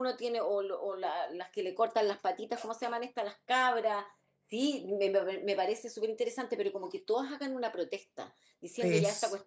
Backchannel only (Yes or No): Yes